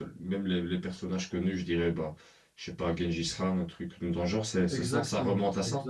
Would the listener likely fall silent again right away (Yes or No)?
No